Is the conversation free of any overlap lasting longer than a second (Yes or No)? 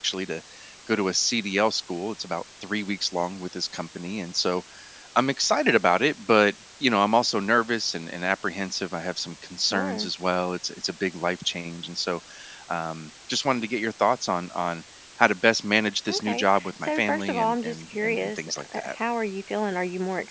No